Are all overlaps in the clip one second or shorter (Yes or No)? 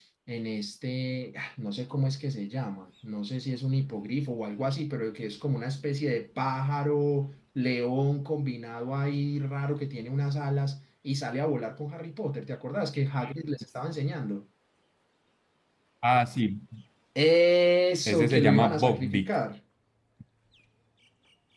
No